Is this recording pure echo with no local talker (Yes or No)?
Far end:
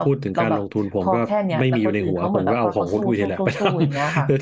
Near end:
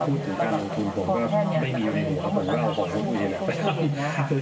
No